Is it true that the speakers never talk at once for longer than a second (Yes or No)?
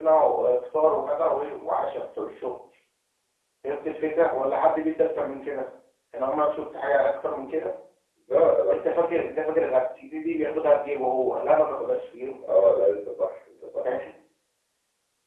Yes